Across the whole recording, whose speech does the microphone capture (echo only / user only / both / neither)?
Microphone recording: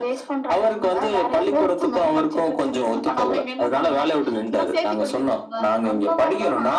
echo only